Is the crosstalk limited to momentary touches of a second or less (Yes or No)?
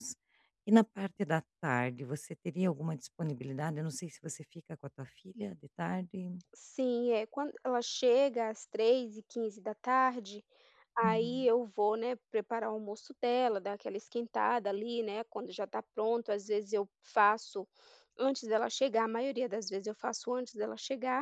Yes